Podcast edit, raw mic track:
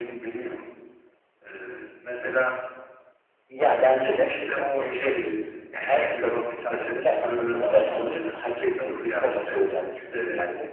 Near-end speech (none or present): none